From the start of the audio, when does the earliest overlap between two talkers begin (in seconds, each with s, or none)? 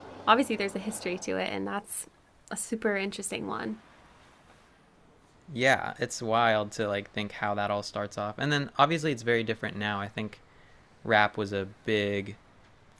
none